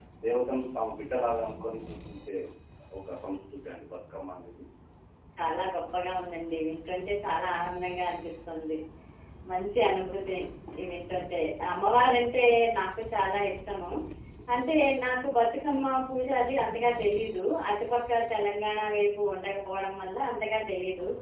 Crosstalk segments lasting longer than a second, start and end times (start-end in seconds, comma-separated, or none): none